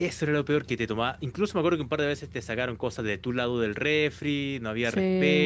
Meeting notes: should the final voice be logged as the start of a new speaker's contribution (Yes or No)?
No